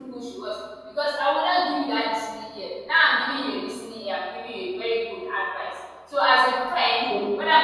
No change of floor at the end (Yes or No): Yes